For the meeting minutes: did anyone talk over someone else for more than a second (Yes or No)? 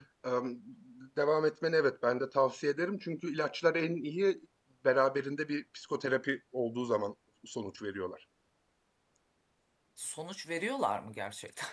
No